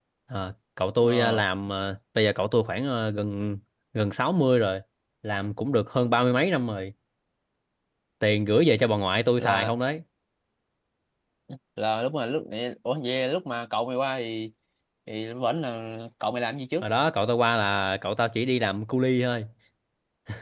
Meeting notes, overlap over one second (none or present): none